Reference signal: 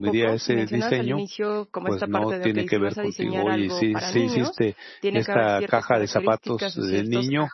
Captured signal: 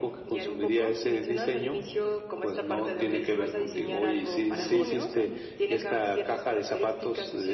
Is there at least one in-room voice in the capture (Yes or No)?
Yes